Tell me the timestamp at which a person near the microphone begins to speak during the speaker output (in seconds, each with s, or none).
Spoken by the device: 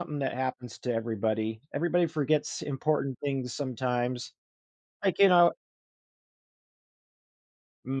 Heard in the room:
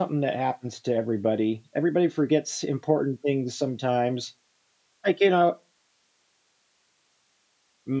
none